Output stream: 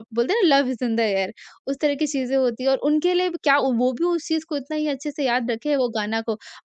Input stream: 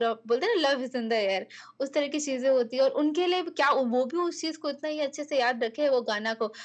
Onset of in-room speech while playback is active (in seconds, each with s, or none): none